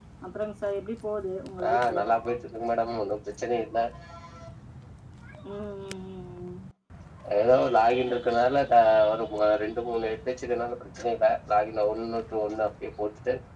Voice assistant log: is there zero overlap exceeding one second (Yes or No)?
Yes